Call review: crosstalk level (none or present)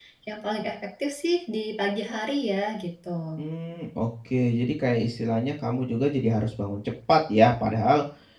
none